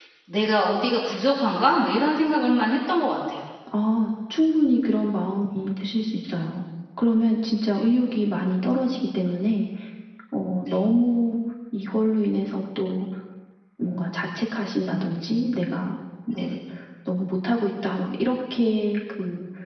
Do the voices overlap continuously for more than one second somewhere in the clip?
No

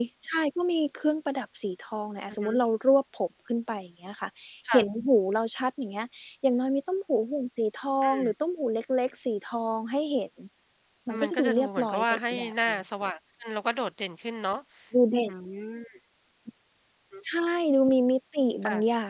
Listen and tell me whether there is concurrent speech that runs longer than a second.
Yes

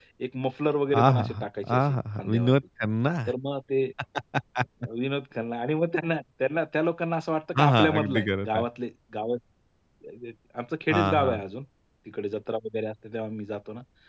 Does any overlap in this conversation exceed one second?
Yes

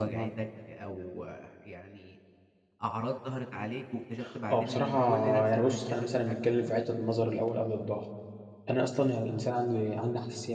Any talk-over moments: Yes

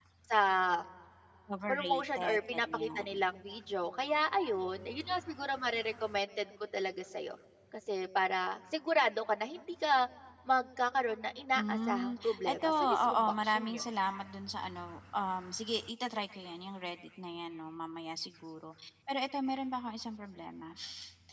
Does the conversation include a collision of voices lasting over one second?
Yes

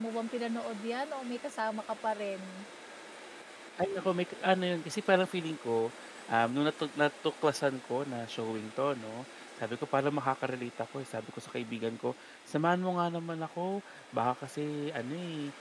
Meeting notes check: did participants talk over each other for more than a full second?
No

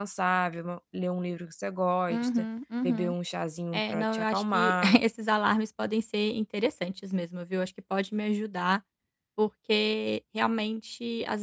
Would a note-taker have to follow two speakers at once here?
Yes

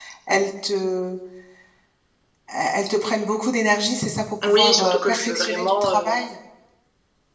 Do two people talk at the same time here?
Yes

